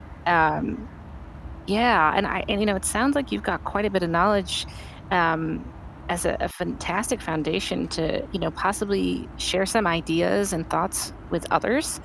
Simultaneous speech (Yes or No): No